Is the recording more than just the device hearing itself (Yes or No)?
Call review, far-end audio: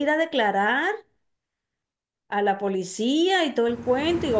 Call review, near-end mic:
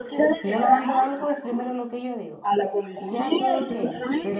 Yes